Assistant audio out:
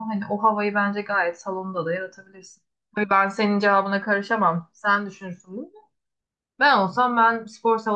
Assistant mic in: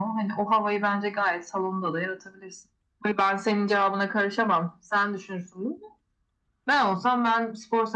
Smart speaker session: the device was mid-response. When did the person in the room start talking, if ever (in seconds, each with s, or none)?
none